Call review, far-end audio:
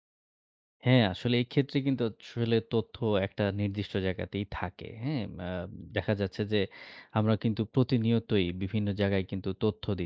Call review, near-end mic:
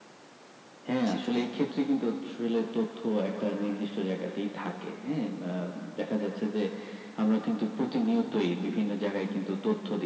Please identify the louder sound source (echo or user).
echo